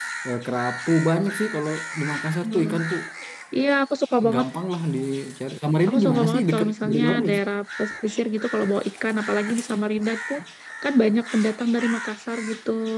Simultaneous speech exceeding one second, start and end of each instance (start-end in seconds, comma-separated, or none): 5.9-7.4